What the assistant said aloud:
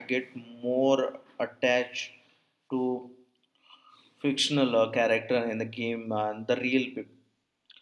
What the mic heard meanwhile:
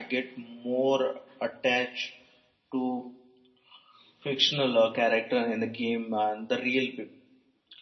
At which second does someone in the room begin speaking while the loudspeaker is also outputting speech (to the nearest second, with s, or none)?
none